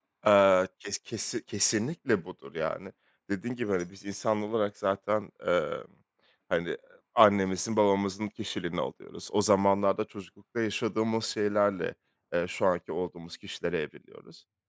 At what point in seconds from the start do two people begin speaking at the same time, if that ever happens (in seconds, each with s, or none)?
none